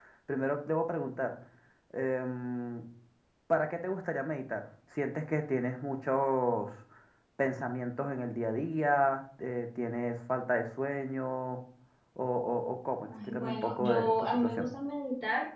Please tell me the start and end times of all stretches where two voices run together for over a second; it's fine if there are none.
13.1-14.7

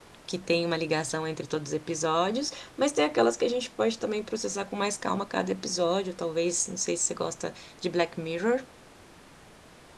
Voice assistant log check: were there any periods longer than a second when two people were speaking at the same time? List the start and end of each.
none

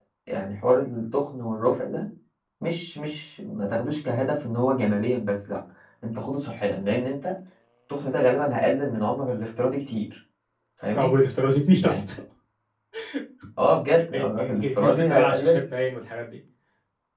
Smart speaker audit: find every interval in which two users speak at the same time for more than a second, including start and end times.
14.1-15.6

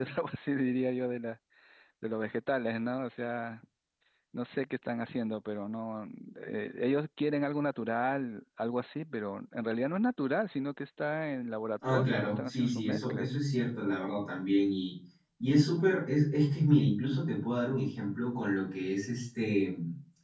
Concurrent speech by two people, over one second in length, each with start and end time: 11.9-13.3

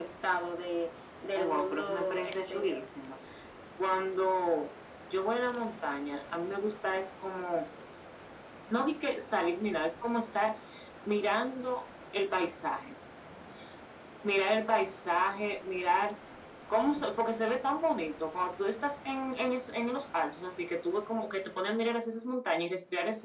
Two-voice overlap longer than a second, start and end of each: 1.4-2.8

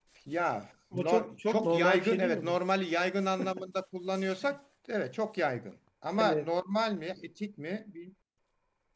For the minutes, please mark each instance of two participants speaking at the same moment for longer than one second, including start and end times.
0.9-2.6

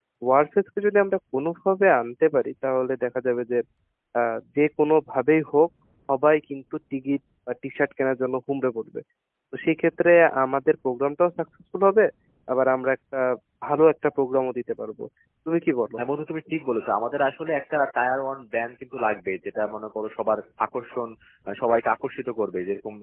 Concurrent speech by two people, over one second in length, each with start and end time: none

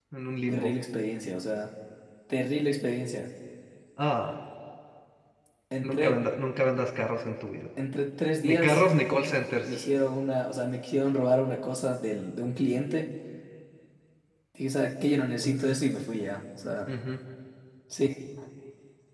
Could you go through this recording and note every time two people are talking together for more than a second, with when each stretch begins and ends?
none

